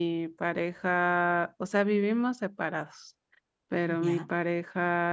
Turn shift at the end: No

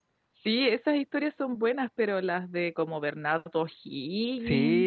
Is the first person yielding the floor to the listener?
Yes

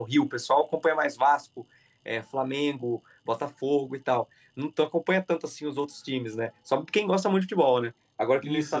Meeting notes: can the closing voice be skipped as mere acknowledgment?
Yes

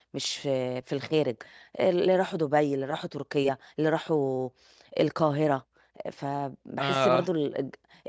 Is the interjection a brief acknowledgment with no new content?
Yes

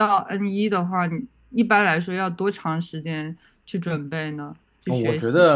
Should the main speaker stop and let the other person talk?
Yes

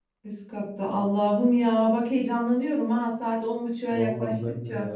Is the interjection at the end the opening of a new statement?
Yes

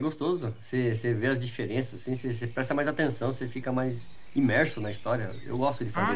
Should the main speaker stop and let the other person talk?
Yes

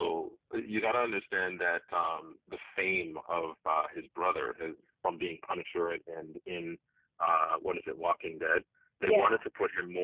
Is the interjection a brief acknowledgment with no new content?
Yes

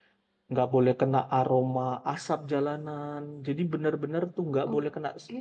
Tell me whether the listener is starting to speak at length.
No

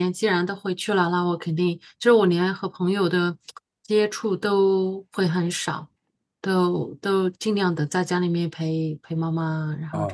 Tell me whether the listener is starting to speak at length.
Yes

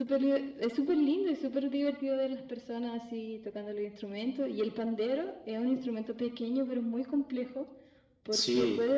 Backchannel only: Yes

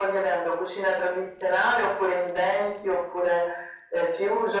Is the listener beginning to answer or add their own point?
No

